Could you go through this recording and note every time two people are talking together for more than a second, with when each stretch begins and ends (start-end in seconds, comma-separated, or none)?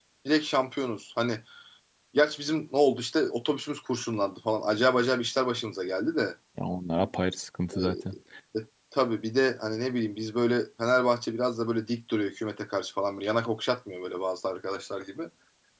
none